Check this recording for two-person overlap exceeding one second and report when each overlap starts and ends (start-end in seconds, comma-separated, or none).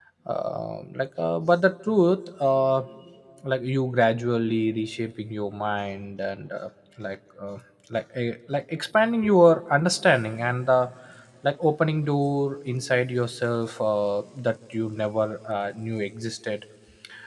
none